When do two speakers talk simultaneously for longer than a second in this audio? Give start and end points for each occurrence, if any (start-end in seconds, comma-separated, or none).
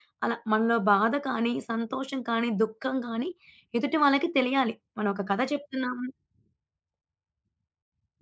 none